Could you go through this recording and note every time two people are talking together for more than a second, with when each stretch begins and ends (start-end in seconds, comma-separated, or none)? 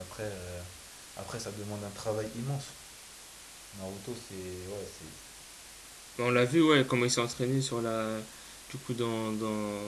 none